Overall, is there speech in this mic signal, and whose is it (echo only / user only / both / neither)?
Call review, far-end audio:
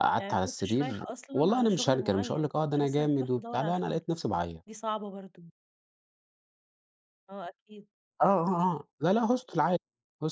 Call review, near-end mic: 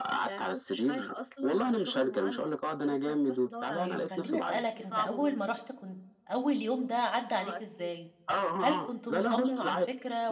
both